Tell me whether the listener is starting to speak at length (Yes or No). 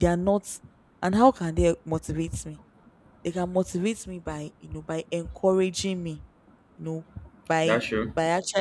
No